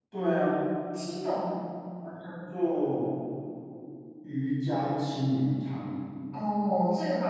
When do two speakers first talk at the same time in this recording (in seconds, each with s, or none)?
none